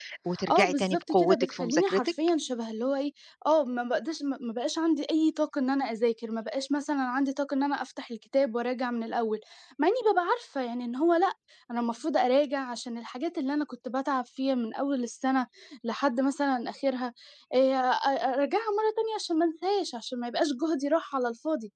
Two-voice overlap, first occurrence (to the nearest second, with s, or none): 1 s